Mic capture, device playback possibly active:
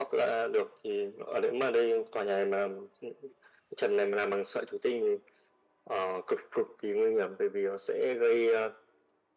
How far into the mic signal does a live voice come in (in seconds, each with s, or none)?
none